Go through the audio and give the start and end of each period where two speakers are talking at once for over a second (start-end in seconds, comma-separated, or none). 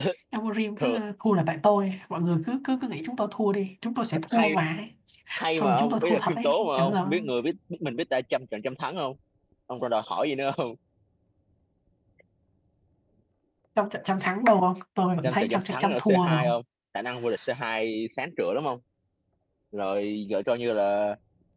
5.5-7.1, 15.2-16.5